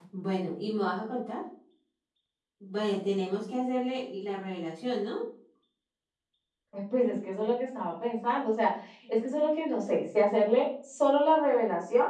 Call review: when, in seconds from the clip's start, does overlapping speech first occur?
none

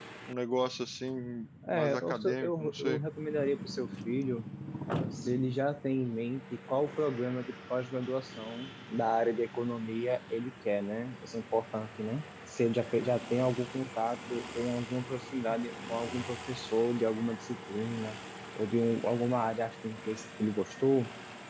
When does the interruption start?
1.7 s

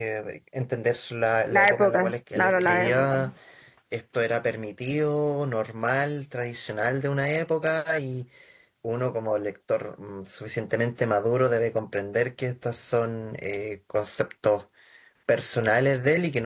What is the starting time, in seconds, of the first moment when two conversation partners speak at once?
1.5 s

